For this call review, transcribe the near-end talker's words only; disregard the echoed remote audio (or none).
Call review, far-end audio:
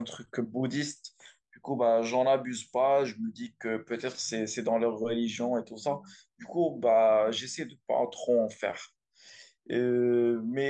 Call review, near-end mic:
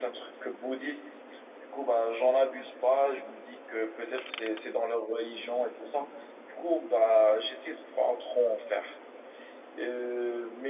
none